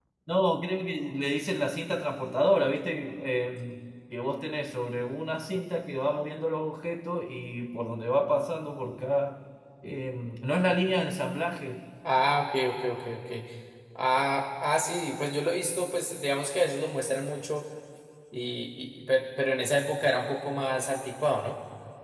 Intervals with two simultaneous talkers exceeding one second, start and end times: none

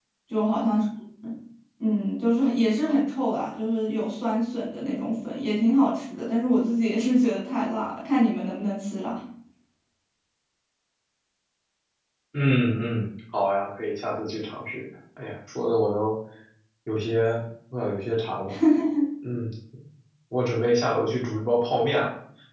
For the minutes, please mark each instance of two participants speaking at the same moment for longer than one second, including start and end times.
none

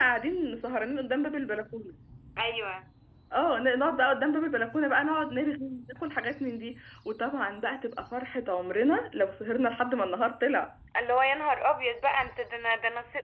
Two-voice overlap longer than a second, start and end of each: none

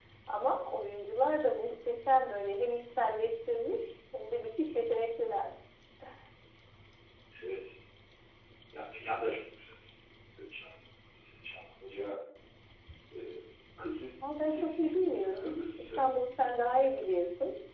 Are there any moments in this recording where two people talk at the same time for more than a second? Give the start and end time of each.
14.2-16.1

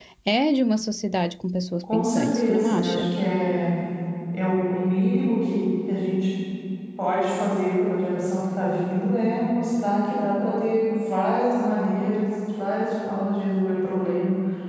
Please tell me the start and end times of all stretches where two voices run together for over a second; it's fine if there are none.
1.8-3.0

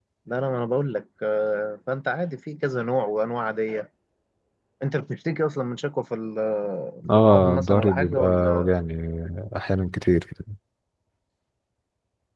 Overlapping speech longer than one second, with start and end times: 7.2-8.7

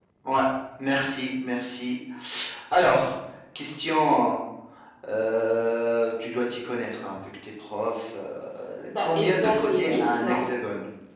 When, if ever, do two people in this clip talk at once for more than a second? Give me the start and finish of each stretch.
9.0-10.4

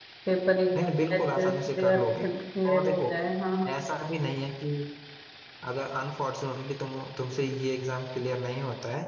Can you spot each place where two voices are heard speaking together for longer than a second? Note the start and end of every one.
0.8-2.3

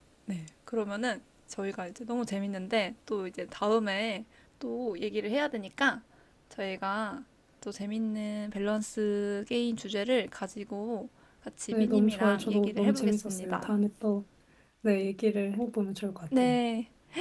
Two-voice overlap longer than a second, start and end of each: 11.7-13.7

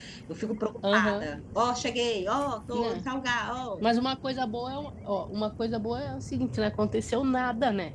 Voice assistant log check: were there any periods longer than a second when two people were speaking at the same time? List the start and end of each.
none

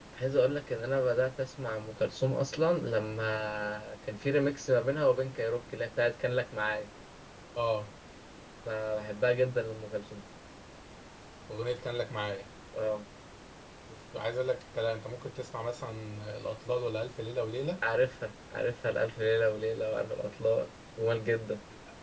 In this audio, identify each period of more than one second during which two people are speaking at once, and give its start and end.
none

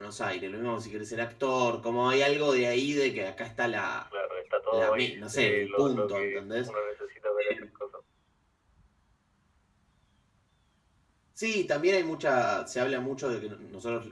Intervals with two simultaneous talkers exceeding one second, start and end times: 4.7-6.6

